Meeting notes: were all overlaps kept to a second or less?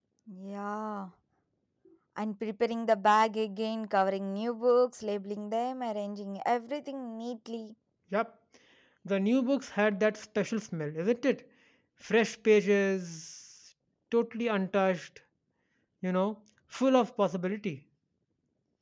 Yes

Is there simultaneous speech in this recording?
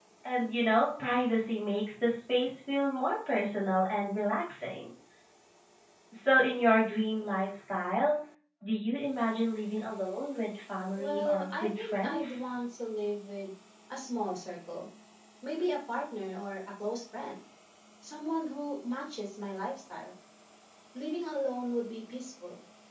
Yes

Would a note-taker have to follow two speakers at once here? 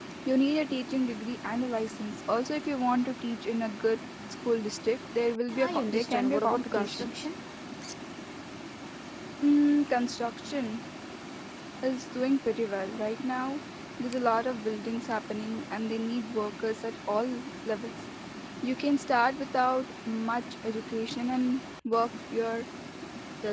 Yes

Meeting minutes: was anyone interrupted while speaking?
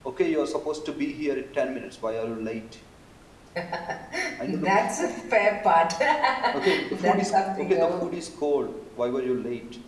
Yes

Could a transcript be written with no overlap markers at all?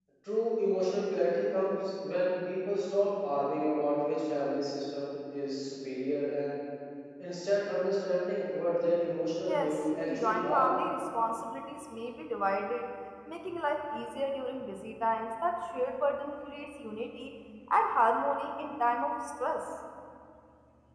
No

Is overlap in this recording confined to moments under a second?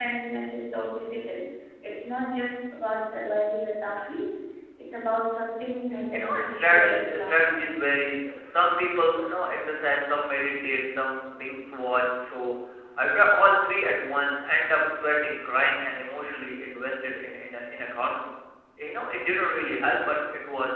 No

